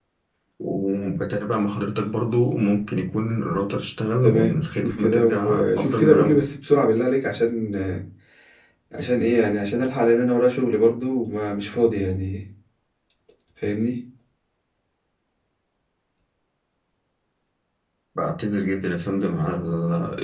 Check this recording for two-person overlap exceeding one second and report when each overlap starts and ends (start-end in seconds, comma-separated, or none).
4.2-6.5